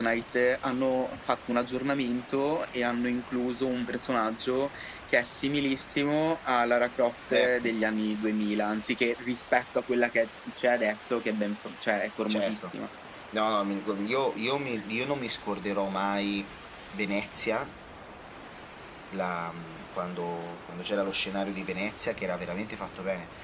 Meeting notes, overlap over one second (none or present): none